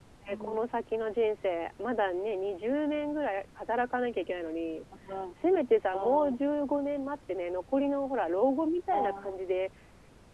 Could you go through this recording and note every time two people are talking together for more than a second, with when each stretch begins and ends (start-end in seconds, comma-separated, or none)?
none